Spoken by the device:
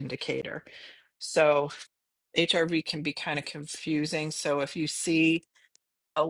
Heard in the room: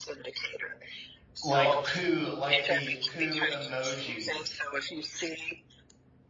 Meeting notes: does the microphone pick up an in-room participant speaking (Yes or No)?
Yes